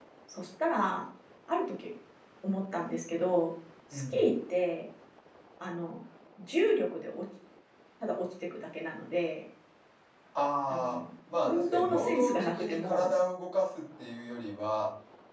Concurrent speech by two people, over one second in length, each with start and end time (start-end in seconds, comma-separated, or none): 11.4-13.1